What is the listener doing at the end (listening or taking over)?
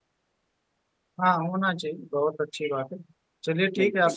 listening